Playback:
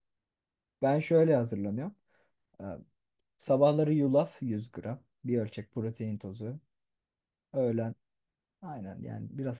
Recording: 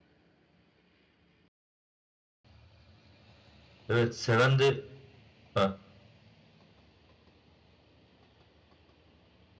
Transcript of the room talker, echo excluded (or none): Evet seven de... Ha.